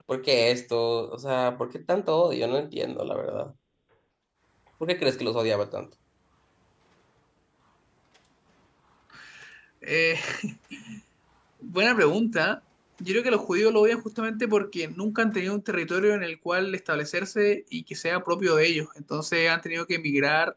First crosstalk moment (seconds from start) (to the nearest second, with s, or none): none